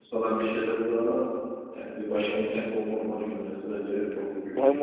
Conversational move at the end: taking over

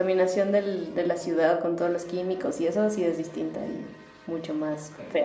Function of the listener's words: taking over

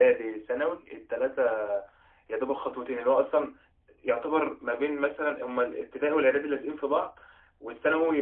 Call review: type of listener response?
listening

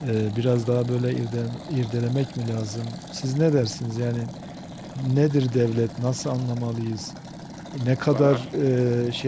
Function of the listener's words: listening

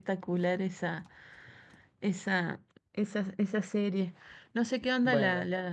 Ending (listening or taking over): listening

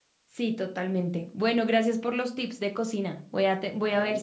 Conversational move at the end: listening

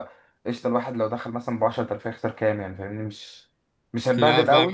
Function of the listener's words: listening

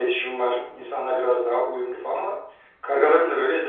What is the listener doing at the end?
listening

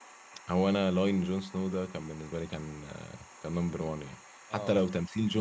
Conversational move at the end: listening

